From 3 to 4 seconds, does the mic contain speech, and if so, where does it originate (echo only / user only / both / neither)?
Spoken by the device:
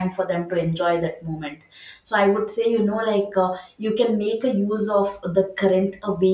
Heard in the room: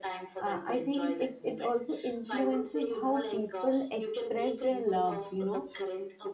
both